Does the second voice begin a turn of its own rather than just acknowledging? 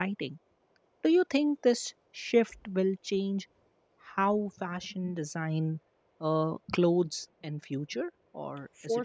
Yes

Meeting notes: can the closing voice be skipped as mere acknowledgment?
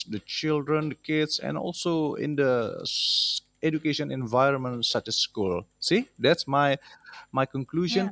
Yes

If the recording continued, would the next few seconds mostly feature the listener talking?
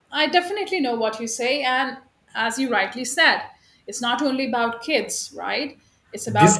Yes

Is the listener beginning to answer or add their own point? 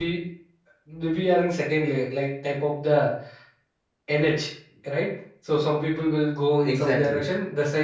No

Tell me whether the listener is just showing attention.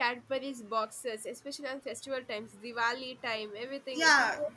No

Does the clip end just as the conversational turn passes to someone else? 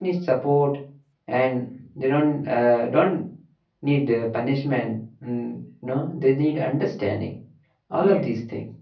Yes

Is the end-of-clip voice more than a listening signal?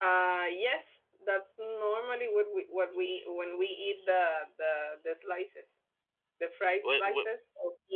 No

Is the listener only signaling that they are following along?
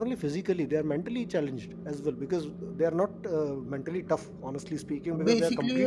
Yes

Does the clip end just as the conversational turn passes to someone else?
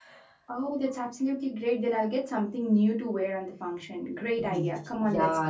Yes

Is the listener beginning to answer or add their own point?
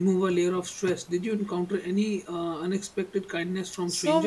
Yes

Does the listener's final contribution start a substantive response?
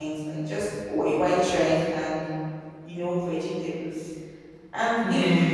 No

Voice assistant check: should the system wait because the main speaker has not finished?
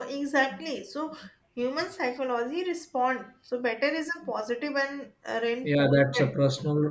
No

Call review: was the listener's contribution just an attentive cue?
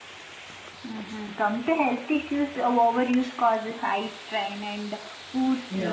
Yes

